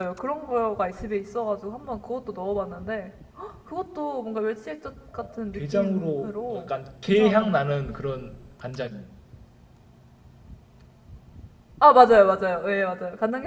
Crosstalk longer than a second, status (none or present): present